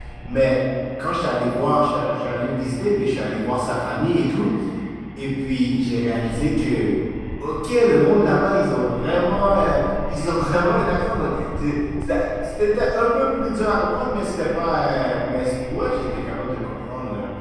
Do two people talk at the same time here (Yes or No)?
No